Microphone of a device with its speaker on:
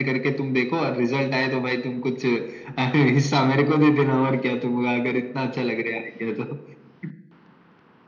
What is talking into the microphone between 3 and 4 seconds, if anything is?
echo only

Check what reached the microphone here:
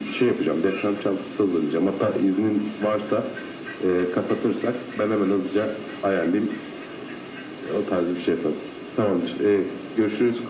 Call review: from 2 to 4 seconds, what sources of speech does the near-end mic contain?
echo only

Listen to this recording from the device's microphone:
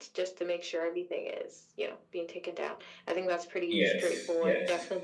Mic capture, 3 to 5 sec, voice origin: both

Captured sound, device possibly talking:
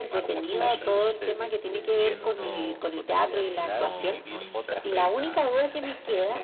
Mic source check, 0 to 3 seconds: both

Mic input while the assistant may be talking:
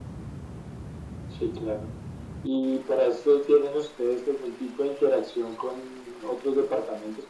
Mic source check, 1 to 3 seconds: echo only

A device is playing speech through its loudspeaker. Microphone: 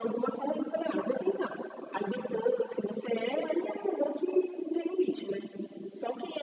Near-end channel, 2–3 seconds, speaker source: echo only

